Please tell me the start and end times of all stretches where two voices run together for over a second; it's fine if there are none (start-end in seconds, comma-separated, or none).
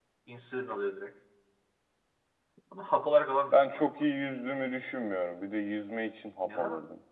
none